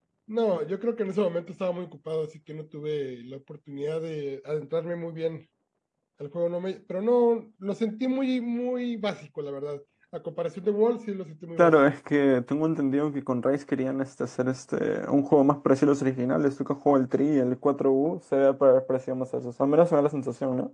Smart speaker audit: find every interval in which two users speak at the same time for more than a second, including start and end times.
none

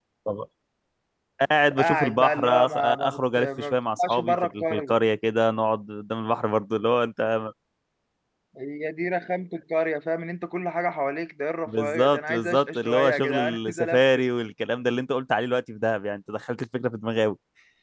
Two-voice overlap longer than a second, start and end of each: 1.8-5.0, 11.7-14.0

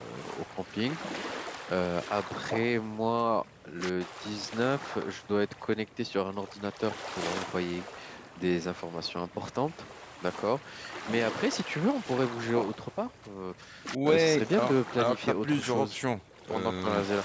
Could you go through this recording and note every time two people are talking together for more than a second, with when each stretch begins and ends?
14.1-16.0

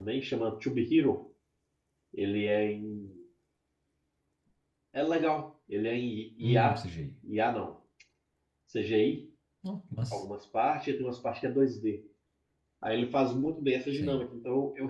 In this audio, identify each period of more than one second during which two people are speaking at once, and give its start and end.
none

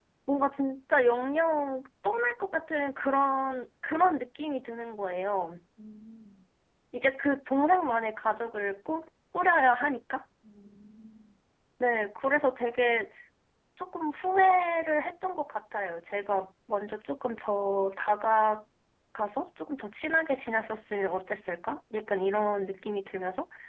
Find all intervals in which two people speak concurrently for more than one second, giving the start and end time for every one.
none

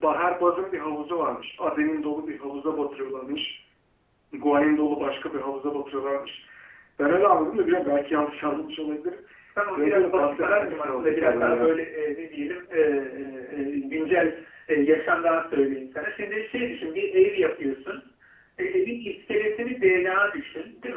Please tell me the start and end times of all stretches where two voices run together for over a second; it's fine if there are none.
9.7-11.7

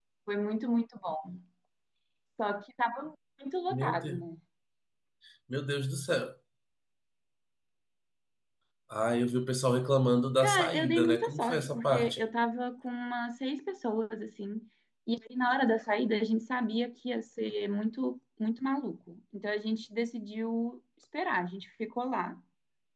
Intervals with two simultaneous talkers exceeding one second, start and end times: 10.4-12.2

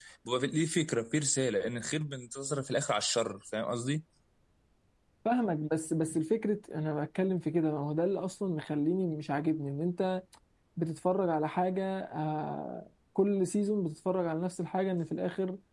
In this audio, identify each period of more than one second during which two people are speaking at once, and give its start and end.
none

